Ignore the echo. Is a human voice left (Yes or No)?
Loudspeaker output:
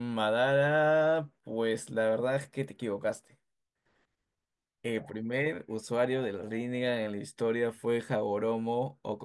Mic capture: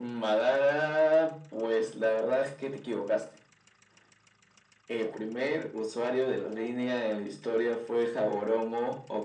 No